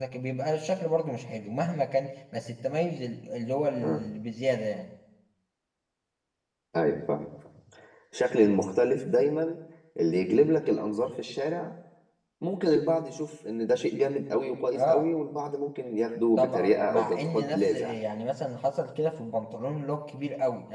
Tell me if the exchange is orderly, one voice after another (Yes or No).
No